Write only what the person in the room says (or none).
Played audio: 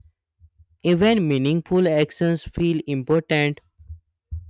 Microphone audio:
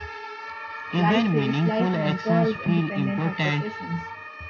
Life feels light when joy is independent of possessions.